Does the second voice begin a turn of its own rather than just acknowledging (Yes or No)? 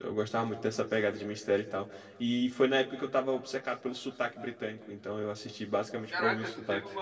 Yes